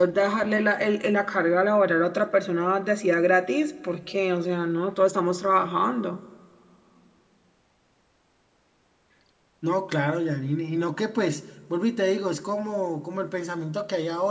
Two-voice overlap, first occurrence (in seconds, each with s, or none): none